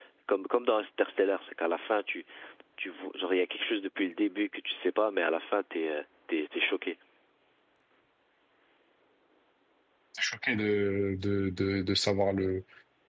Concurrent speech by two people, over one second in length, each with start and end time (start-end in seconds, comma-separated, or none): none